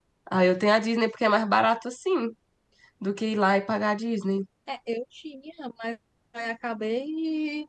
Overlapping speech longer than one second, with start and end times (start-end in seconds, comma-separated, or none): none